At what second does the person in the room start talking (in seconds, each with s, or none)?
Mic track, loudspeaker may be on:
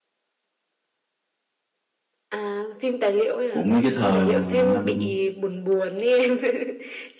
3.5 s